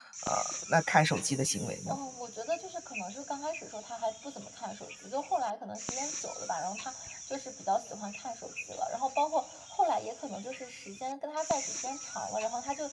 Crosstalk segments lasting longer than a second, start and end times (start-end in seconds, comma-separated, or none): none